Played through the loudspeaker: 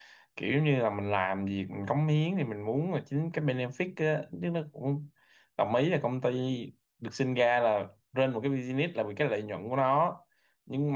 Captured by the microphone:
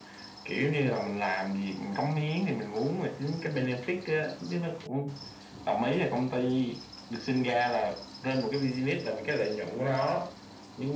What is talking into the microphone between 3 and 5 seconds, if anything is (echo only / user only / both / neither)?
echo only